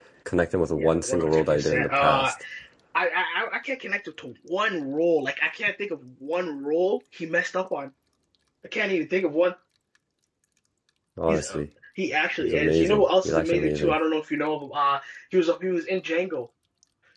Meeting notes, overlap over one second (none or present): present